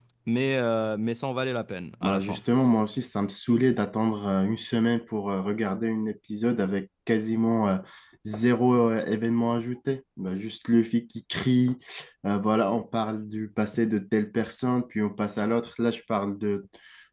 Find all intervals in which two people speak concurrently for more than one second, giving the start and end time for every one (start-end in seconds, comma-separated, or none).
none